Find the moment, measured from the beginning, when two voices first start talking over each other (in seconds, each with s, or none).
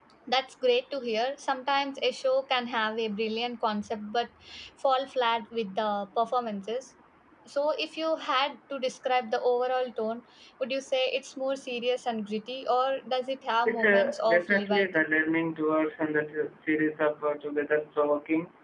13.7 s